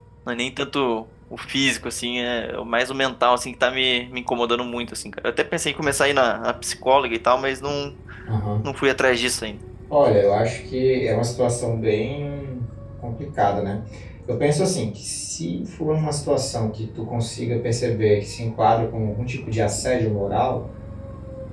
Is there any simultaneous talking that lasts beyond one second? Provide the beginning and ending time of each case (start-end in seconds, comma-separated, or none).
none